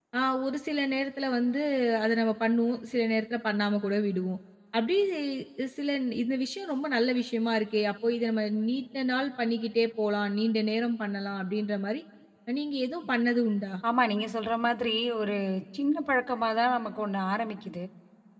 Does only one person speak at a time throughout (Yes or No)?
Yes